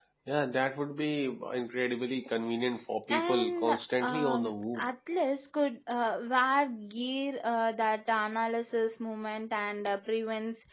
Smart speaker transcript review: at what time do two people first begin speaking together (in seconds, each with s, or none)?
3.1 s